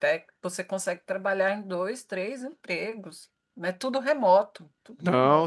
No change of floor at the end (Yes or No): No